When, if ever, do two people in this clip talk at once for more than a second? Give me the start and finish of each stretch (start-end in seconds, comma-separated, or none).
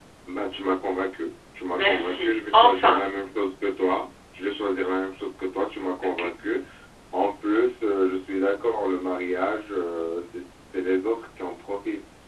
1.7-3.0